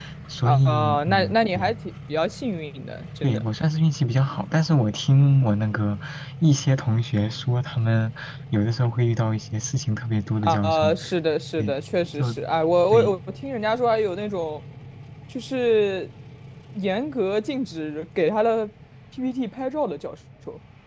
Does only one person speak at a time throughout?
No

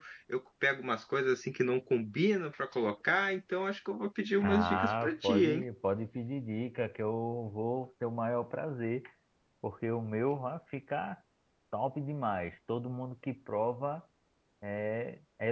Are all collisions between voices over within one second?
No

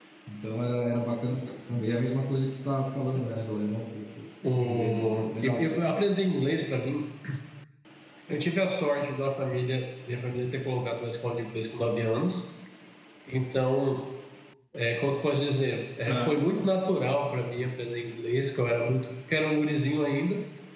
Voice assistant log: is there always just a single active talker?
No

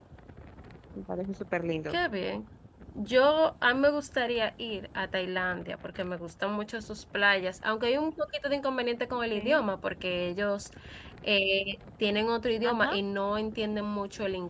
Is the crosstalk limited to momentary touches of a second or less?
Yes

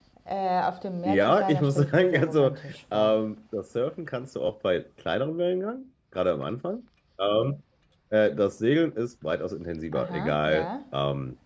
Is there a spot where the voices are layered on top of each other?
Yes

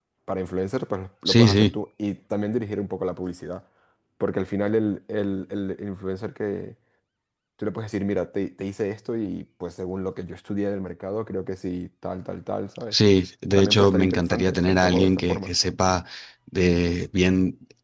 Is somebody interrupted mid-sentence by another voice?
Yes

